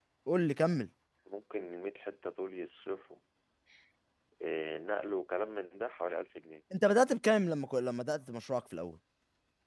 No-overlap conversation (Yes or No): Yes